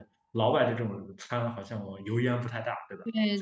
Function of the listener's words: listening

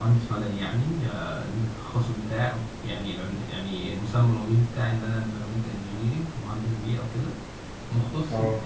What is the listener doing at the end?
listening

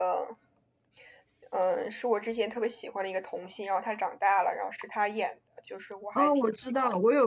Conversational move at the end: taking over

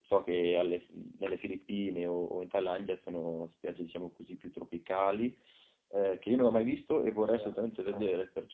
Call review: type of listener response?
listening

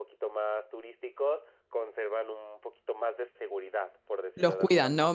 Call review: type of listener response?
taking over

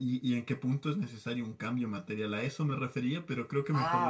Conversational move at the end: taking over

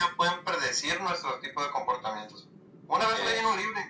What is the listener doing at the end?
listening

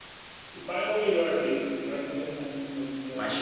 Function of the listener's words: taking over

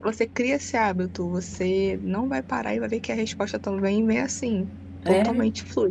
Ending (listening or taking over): listening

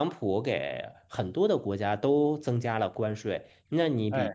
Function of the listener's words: listening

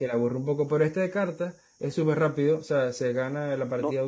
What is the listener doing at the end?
listening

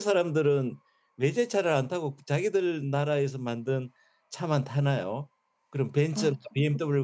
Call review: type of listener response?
listening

